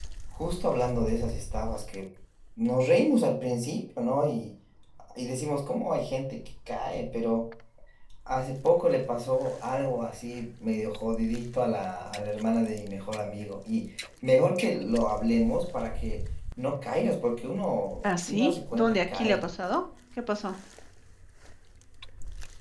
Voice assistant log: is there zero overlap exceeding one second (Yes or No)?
No